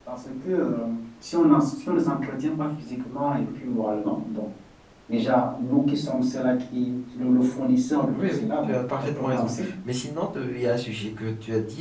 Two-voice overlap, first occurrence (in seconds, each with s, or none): 8.1 s